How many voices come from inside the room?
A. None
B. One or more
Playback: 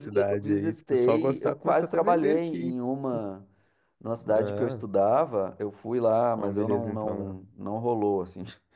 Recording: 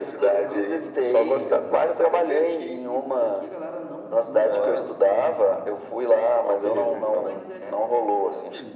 B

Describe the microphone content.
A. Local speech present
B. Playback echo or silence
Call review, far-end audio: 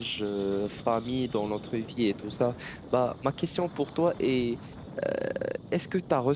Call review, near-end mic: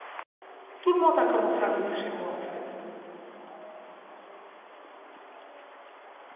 A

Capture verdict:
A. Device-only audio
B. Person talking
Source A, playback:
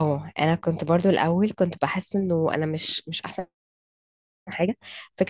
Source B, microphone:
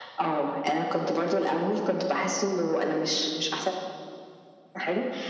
A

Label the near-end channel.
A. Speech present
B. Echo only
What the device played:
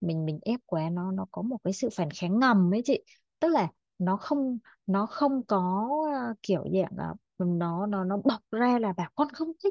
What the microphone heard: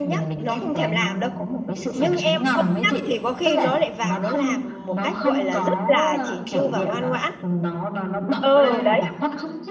A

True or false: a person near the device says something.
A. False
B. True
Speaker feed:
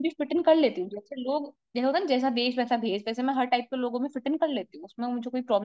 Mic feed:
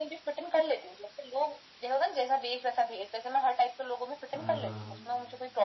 B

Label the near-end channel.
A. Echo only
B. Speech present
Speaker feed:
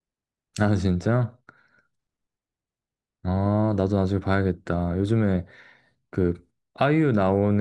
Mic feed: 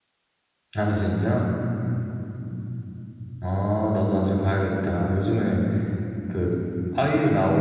A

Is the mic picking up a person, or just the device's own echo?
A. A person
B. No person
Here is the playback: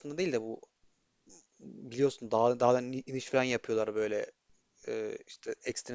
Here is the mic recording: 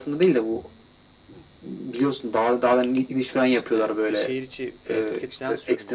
A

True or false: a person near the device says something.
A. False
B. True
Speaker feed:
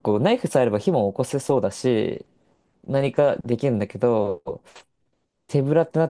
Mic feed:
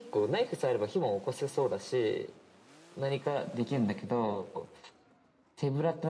A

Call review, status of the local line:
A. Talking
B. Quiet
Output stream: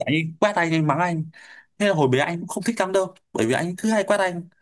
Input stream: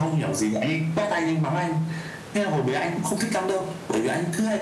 B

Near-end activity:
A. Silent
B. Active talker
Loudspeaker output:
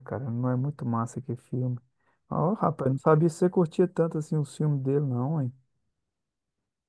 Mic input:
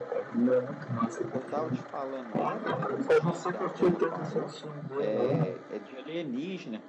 B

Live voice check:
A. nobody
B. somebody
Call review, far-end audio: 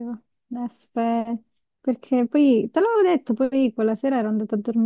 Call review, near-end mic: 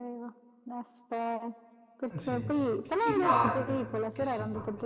B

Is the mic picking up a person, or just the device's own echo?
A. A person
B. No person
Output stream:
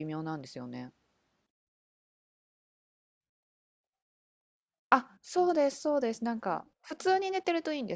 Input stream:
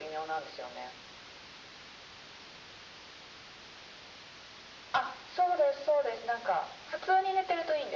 B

